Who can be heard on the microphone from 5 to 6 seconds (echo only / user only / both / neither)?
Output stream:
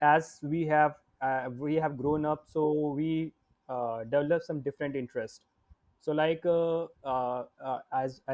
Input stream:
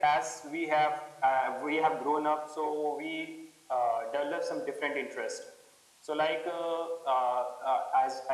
echo only